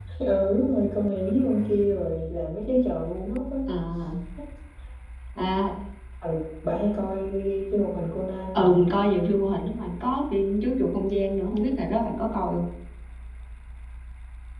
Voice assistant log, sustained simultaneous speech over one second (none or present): none